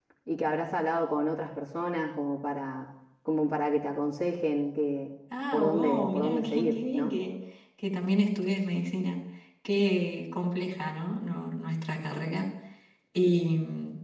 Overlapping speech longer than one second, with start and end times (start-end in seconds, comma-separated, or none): 5.5-7.1